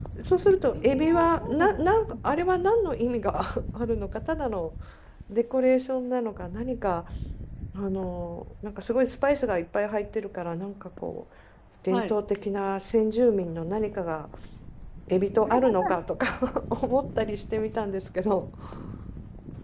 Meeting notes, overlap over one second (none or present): present